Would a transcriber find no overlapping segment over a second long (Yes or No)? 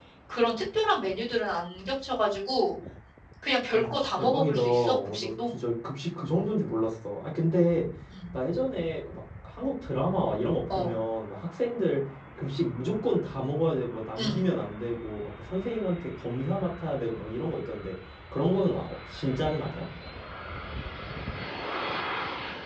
No